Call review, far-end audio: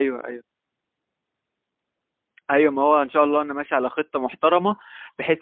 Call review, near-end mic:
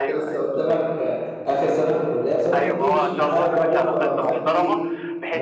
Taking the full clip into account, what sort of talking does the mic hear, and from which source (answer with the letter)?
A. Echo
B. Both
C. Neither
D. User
B